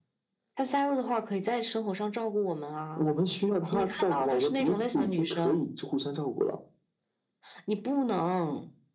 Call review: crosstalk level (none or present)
present